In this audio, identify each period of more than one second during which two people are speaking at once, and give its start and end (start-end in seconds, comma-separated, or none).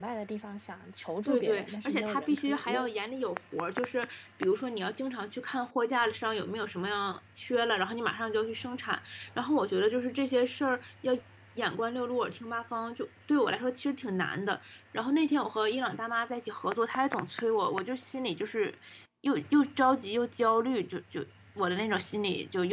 1.2-2.9